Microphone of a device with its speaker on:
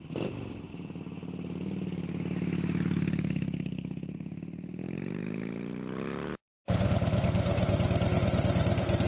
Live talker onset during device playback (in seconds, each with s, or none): none